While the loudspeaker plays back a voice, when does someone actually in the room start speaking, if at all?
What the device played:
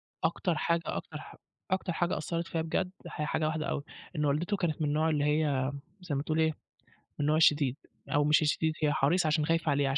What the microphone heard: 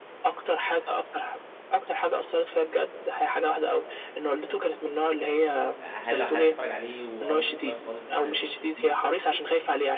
6 s

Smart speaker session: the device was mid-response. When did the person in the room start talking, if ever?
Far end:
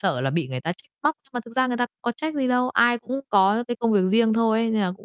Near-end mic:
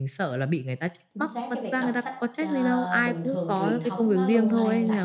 1 s

